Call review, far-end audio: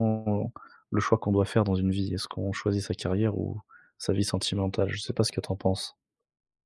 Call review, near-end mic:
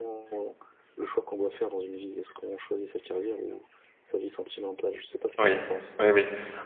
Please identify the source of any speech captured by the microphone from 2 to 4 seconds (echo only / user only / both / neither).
echo only